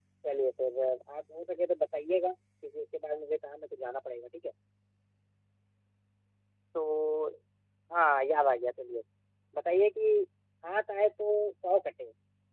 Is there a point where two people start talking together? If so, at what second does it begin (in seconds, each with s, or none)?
none